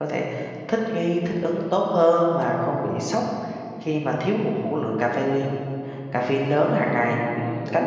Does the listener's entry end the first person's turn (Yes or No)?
Yes